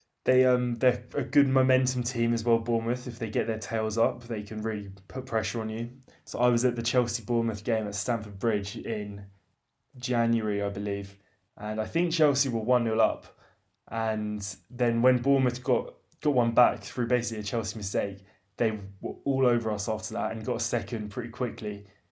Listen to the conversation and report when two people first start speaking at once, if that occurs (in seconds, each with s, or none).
none